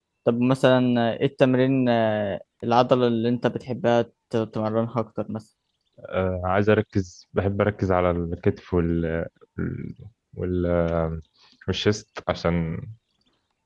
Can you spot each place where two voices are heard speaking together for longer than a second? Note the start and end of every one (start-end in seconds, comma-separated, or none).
none